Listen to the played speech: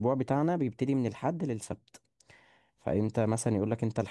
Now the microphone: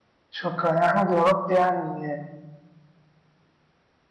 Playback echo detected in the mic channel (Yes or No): No